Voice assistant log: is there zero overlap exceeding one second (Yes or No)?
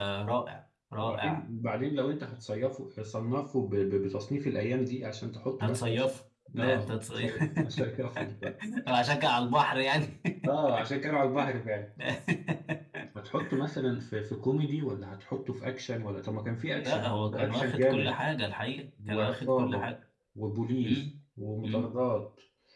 No